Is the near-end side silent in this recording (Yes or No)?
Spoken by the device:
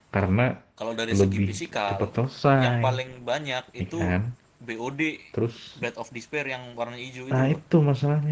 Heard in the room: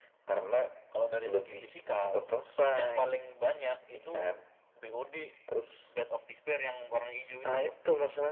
Yes